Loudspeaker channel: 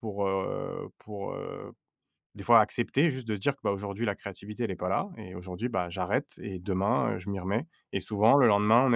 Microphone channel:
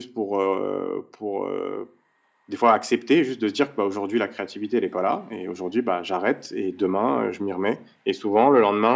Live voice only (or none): none